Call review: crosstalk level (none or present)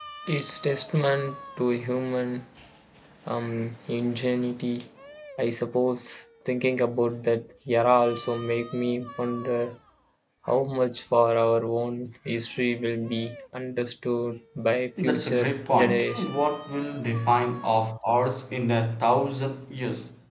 present